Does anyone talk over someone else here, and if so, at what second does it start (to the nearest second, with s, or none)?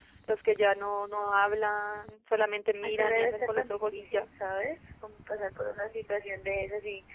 3 s